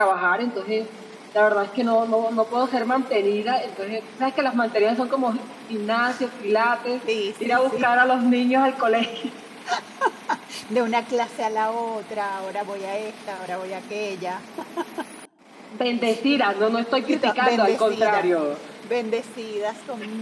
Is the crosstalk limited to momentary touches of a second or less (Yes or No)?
No